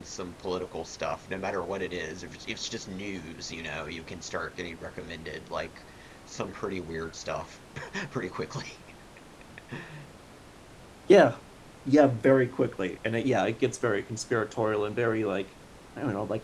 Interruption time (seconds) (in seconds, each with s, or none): none